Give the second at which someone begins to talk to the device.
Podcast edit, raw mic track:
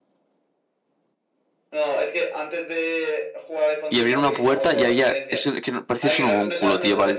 3.9 s

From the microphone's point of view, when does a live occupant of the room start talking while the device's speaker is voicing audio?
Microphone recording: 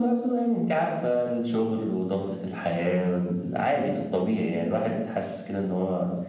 none

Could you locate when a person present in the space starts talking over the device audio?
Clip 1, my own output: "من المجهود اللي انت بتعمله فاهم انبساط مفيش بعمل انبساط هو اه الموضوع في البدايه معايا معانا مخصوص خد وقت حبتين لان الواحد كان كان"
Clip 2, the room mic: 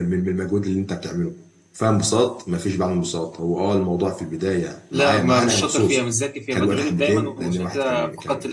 4.9 s

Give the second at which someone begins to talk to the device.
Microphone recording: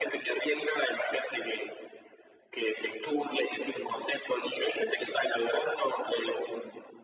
none

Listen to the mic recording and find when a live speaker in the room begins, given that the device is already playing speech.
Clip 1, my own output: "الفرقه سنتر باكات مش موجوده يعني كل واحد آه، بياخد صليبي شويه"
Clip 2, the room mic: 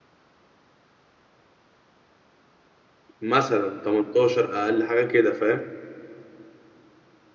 3.2 s

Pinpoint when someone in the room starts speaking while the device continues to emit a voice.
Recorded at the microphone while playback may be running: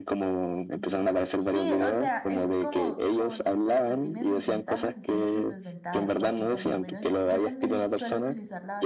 0.7 s

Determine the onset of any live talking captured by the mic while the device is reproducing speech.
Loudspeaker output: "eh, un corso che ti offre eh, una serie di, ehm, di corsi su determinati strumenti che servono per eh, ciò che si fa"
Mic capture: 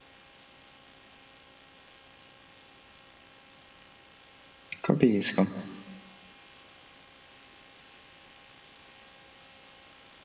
4.8 s

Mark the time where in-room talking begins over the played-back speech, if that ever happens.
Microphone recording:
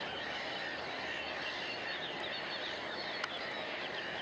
none

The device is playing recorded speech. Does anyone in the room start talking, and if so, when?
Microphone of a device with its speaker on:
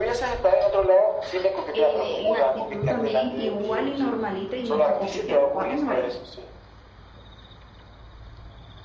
1.7 s

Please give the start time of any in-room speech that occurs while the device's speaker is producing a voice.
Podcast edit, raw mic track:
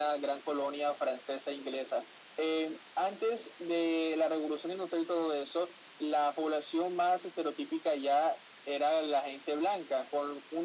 none

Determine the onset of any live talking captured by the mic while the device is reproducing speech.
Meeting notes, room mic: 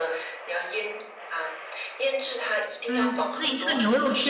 2.9 s

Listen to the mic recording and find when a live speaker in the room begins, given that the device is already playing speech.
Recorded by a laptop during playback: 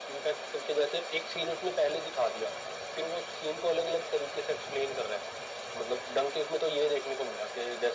none

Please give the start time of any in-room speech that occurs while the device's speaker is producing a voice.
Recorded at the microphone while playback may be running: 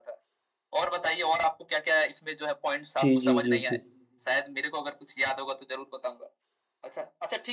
3.0 s

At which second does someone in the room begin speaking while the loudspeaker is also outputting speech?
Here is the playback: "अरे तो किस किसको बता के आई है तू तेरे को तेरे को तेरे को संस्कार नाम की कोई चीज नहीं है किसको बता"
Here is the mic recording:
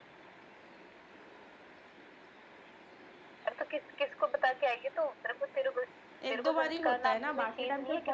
6.3 s

